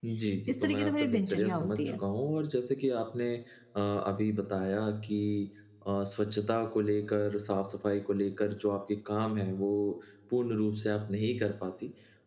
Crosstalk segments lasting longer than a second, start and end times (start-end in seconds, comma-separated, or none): 0.6-2.0